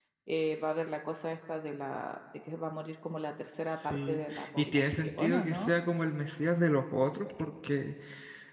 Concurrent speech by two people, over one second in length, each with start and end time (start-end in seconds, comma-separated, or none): 3.6-5.7